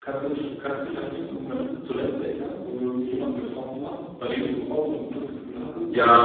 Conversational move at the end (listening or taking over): taking over